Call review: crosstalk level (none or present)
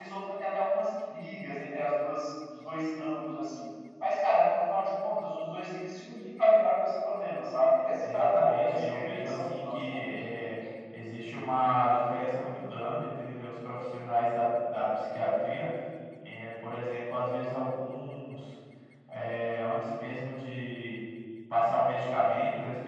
present